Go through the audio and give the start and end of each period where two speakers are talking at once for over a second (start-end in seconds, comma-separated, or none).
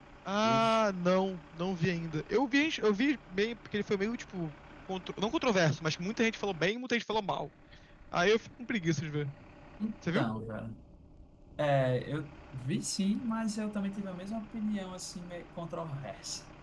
none